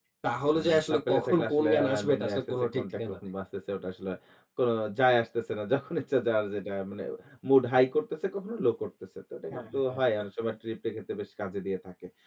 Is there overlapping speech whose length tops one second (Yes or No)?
Yes